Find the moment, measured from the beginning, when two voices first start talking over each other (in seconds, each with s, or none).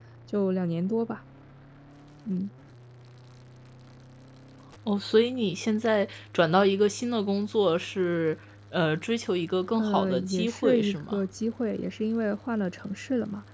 9.8 s